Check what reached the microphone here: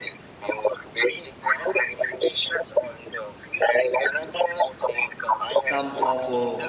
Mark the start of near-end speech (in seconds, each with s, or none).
5.5 s